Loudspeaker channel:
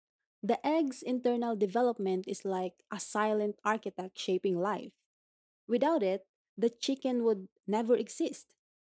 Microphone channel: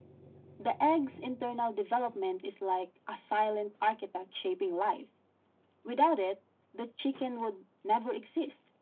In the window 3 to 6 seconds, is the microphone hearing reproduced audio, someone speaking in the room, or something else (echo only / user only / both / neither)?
echo only